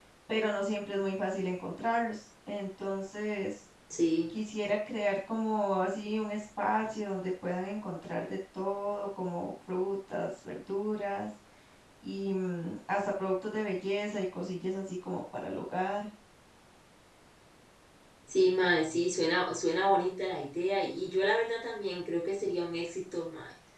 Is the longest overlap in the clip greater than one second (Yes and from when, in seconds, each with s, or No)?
No